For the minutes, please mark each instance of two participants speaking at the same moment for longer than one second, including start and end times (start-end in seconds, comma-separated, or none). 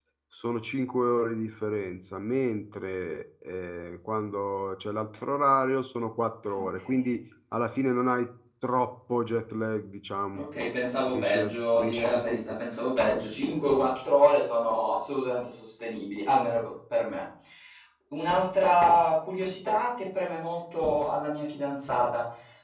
11.1-12.6